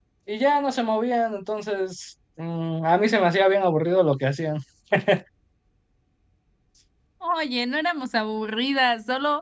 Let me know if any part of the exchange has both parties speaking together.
No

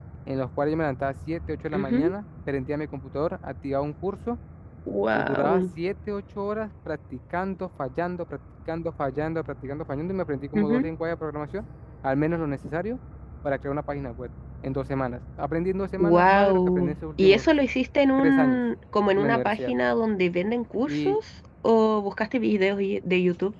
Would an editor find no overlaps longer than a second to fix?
No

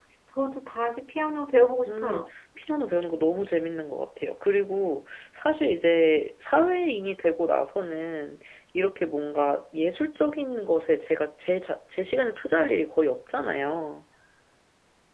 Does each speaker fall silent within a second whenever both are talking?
Yes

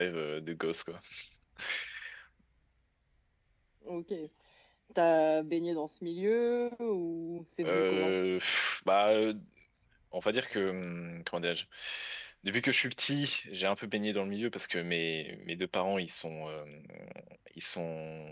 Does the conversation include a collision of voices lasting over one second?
No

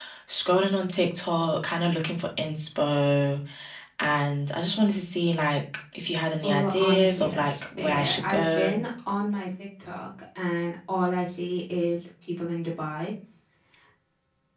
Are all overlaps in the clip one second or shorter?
No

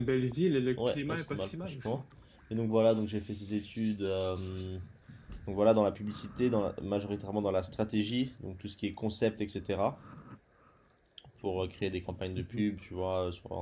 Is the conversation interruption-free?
No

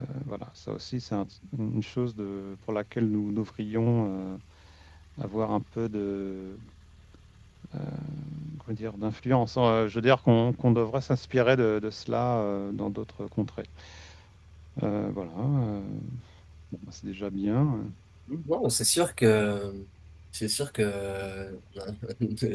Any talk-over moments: No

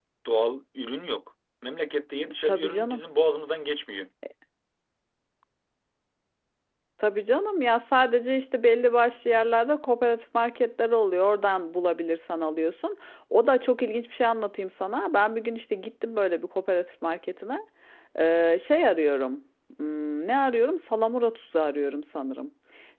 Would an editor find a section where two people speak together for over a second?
No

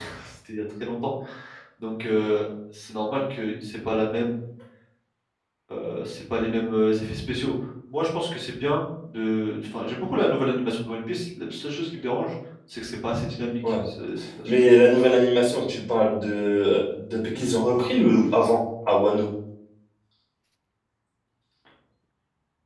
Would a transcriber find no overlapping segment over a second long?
Yes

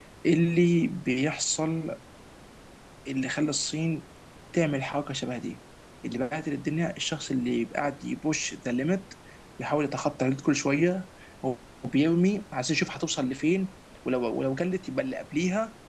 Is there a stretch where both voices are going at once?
No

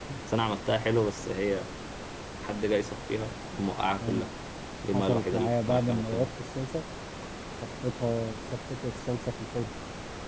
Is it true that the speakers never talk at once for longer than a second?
No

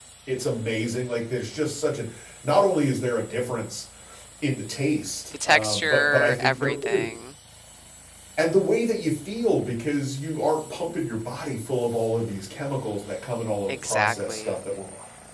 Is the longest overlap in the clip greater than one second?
Yes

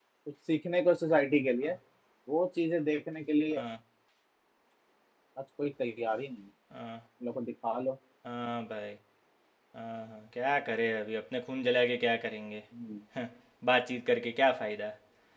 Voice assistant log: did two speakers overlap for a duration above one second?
No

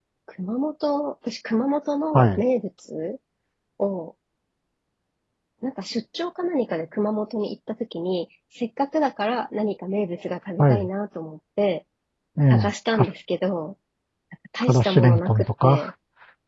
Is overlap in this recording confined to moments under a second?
No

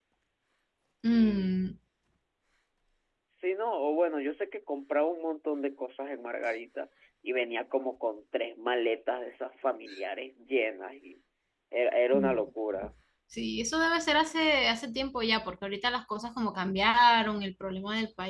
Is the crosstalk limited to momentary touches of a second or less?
Yes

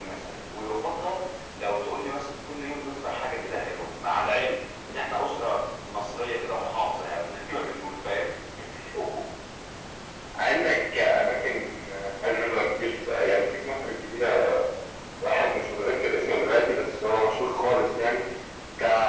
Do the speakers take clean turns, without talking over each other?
Yes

